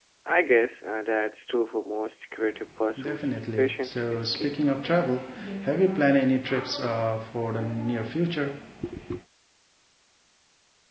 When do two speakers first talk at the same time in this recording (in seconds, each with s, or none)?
3.0 s